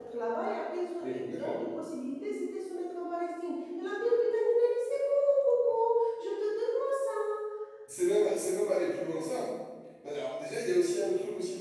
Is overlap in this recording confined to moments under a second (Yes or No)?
Yes